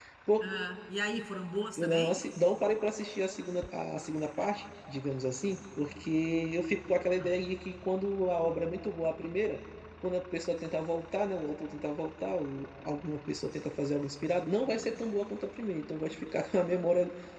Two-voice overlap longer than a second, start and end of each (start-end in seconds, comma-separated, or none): none